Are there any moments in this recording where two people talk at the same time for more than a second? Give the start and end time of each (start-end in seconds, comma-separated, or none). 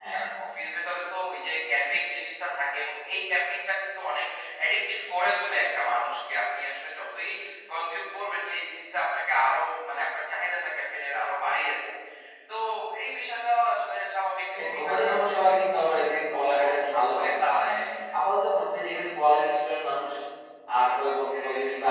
14.5-17.7